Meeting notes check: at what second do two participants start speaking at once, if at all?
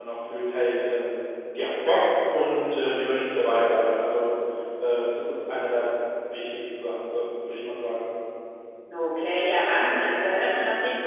none

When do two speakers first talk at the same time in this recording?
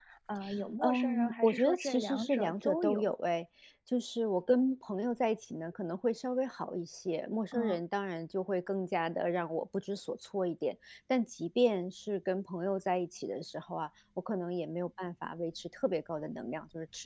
1 s

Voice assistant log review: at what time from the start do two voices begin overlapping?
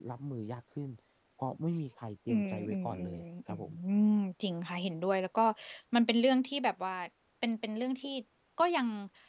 2 s

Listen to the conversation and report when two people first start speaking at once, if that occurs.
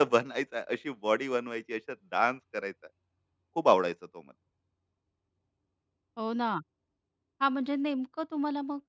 none

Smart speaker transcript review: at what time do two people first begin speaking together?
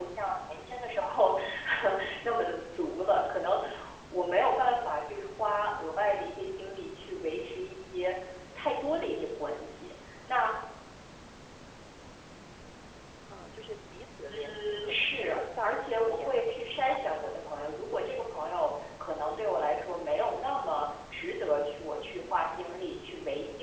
14 s

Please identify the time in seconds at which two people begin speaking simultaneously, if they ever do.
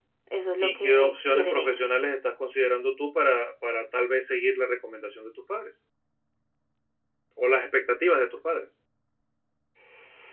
1 s

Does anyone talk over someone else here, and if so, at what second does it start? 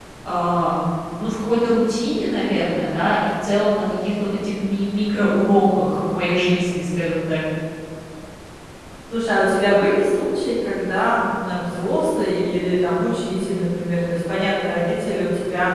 none

